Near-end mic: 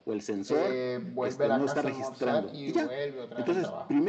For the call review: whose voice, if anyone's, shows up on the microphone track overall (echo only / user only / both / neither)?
both